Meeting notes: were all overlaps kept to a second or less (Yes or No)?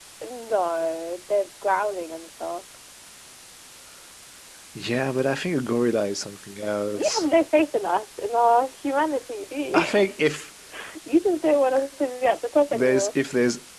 Yes